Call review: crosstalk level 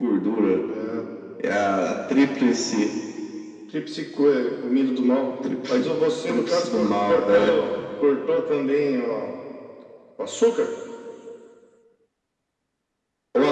present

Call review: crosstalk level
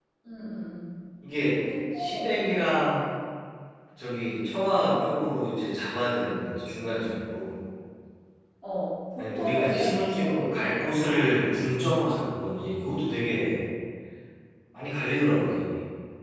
present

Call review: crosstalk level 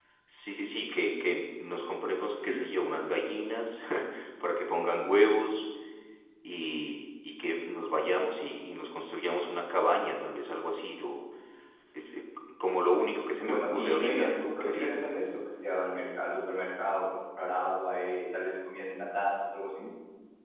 present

